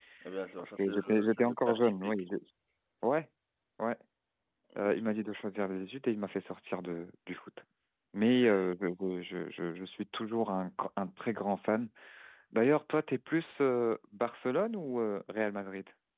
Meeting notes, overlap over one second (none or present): present